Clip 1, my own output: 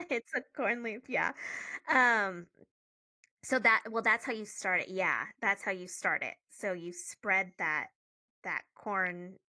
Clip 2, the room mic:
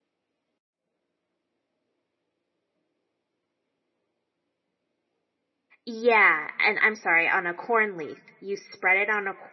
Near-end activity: present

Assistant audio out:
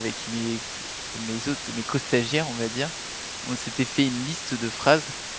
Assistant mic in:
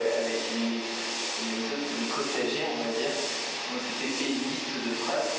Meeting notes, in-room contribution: none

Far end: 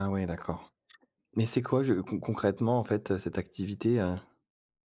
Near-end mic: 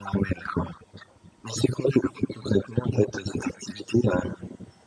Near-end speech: none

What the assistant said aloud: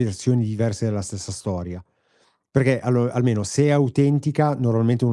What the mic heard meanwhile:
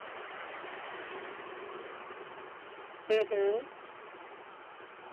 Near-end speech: present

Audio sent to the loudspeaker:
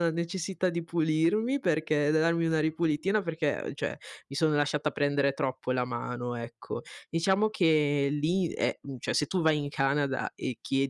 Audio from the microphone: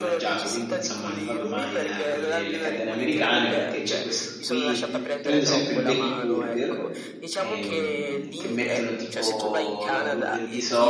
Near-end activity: present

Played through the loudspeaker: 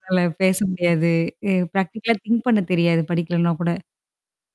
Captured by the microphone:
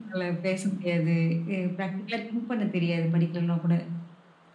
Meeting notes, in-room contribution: none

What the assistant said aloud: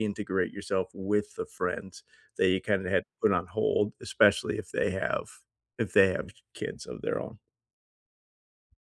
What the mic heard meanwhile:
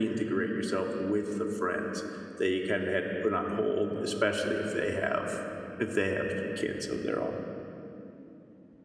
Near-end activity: none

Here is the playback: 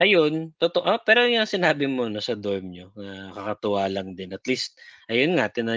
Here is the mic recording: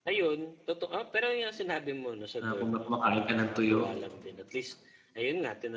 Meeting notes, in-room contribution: present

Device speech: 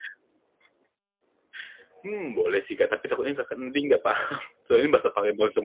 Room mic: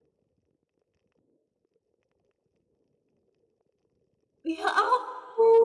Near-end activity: present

